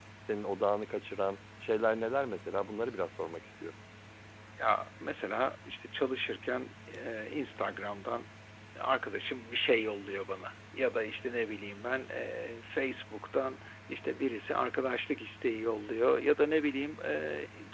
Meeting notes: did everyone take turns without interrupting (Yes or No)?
Yes